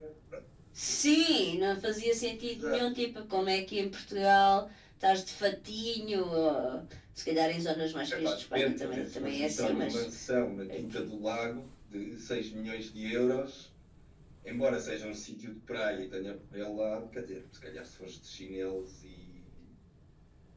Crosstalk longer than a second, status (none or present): present